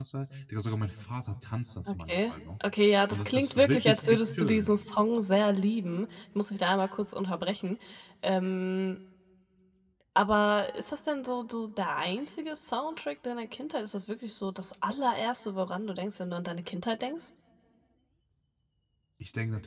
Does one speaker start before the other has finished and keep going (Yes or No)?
Yes